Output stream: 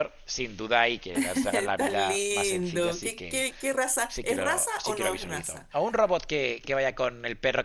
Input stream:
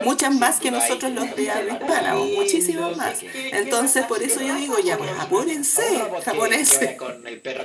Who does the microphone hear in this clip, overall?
both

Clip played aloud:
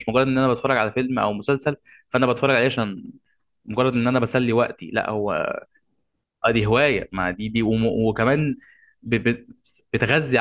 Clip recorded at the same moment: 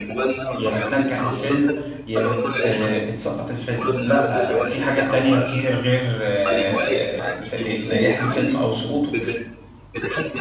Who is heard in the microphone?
both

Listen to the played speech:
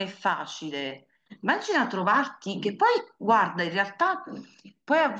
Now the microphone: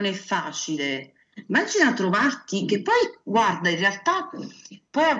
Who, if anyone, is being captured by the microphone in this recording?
echo only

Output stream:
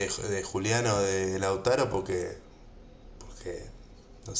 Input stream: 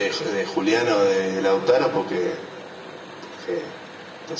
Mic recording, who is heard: echo only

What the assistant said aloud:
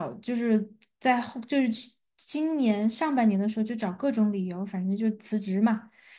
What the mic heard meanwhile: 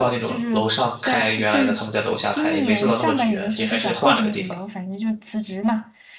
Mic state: both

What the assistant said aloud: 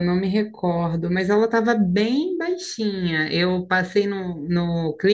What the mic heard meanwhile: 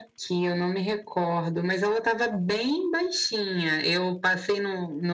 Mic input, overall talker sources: echo only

